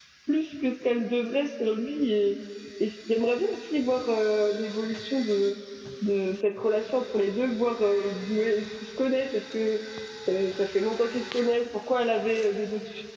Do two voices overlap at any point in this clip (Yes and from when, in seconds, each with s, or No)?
No